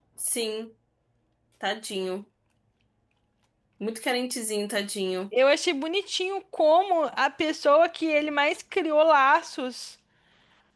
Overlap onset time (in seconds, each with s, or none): none